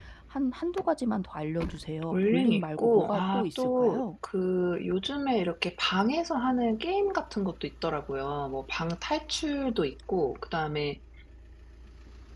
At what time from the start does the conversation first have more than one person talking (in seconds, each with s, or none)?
2.1 s